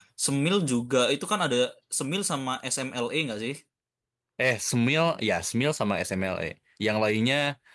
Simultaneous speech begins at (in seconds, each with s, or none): none